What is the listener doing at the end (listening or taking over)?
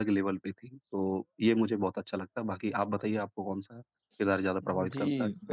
taking over